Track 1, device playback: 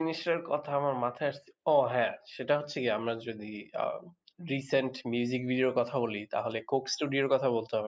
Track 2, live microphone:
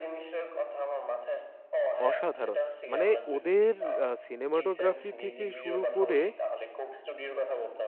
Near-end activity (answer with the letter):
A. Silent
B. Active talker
B